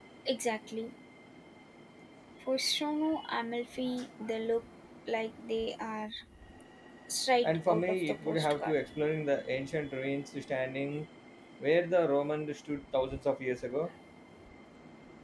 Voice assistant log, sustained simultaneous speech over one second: present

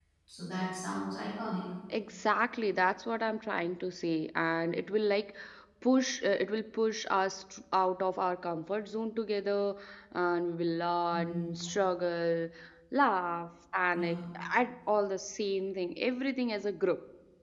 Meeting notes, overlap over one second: none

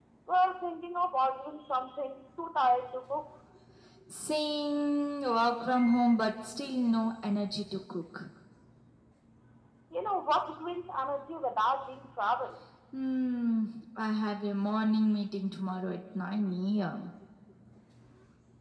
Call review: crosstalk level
none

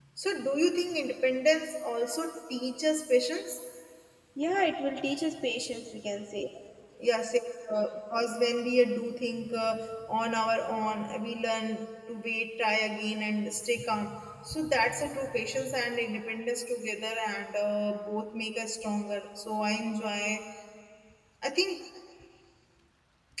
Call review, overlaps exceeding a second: none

